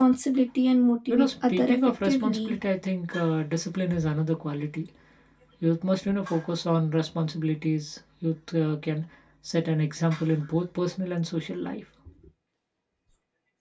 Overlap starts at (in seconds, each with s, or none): 1.1 s